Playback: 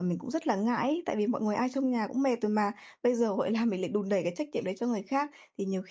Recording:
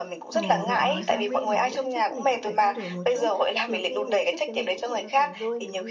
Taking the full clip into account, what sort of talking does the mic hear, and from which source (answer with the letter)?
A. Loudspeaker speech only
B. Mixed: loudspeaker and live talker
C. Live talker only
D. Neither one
B